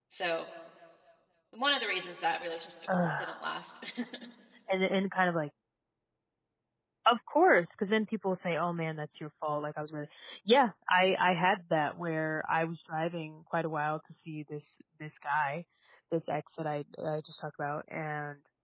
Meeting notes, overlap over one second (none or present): none